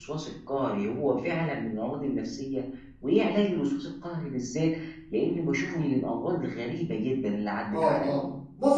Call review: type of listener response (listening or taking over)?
taking over